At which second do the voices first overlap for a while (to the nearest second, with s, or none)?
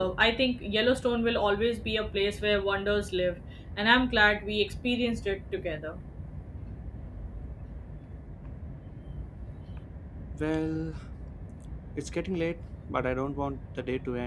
none